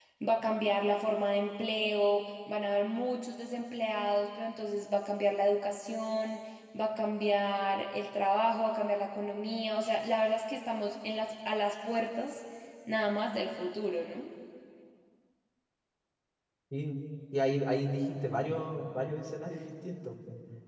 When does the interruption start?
none

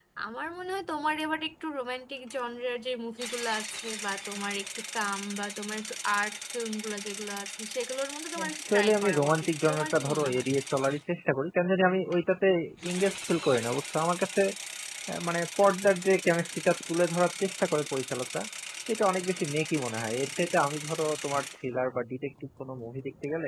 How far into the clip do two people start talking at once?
8 s

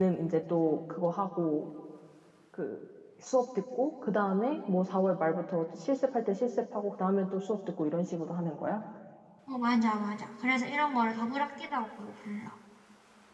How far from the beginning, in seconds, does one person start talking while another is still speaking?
none

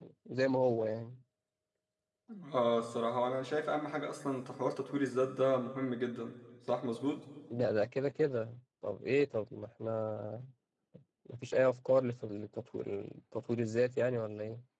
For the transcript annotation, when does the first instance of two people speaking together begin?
none

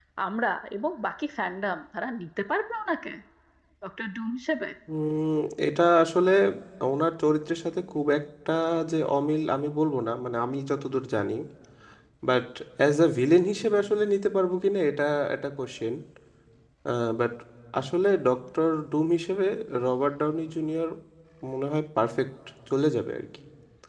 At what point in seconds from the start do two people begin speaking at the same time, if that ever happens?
none

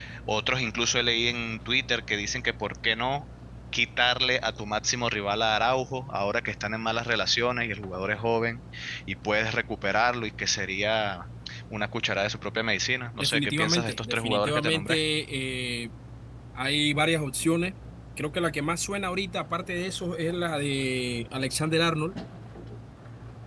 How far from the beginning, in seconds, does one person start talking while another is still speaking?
13 s

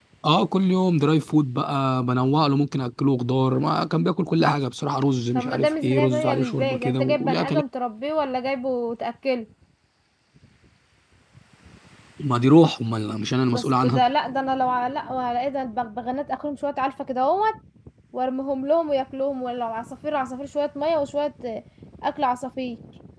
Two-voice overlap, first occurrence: 5 s

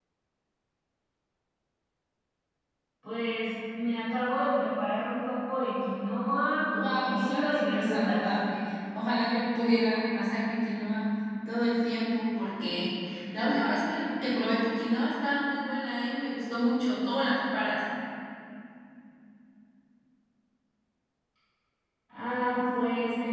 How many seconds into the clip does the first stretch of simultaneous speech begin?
7 s

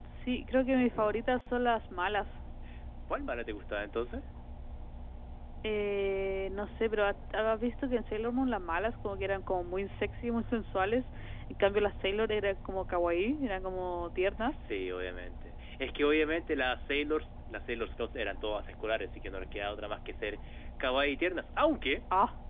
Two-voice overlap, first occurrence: none

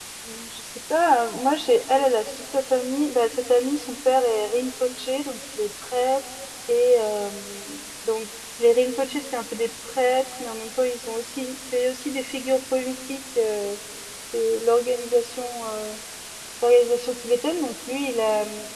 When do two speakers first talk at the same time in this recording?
none

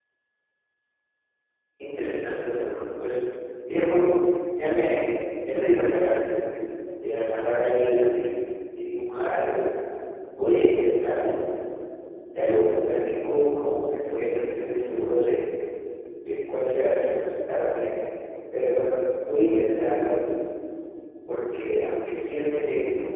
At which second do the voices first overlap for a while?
none

